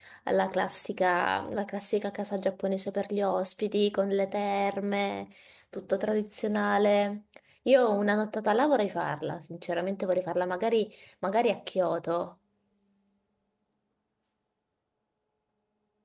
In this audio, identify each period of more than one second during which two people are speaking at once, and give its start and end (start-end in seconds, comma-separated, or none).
none